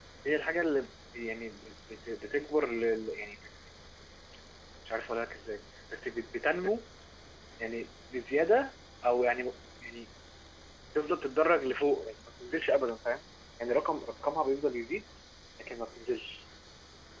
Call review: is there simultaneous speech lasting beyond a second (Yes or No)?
No